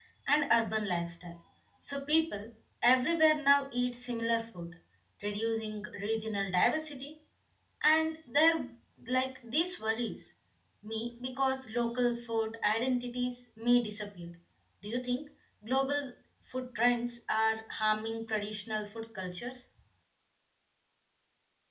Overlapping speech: No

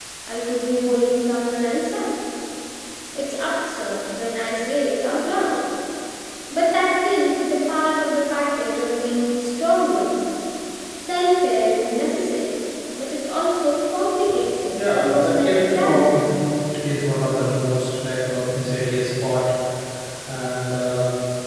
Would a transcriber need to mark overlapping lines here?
Yes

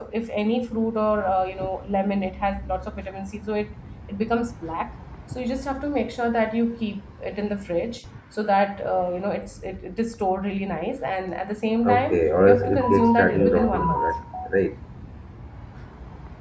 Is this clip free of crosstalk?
No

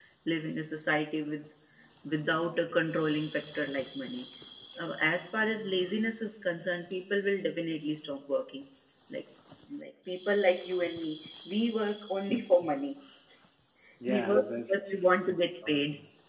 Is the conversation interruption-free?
No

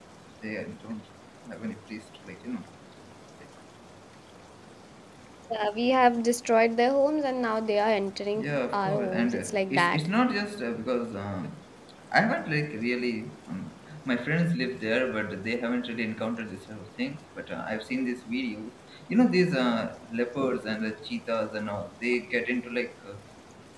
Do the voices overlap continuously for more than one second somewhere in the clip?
Yes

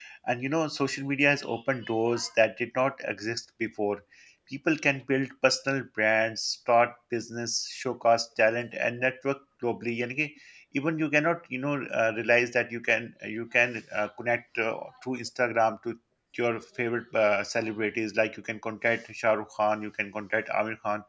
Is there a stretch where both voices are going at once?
No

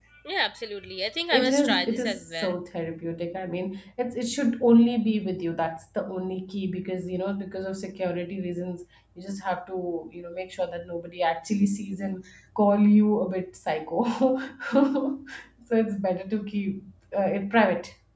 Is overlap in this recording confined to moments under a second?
No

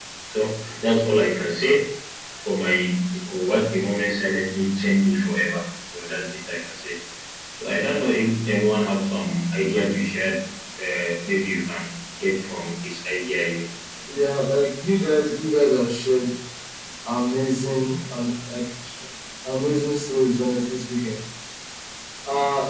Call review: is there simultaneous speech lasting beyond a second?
No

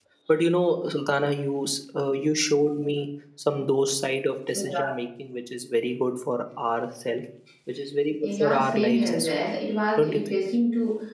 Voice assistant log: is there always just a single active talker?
No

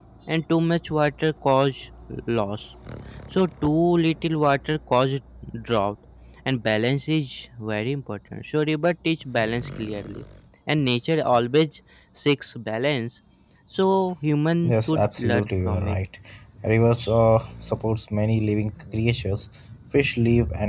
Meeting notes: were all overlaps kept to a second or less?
No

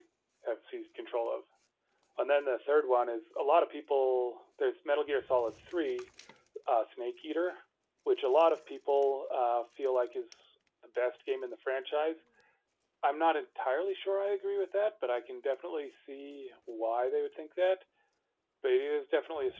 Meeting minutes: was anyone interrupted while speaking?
No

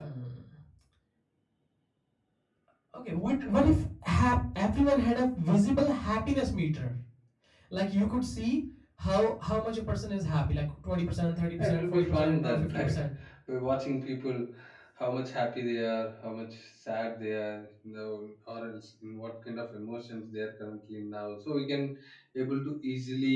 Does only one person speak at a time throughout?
No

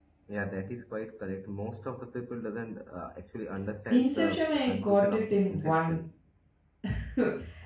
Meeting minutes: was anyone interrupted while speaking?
Yes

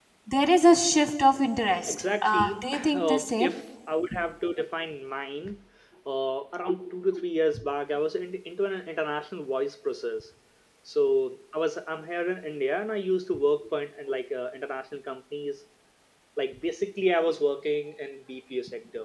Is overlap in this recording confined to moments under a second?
No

